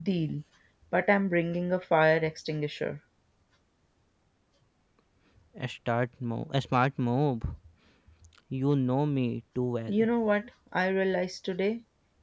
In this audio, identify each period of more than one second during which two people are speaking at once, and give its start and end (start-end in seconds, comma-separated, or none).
none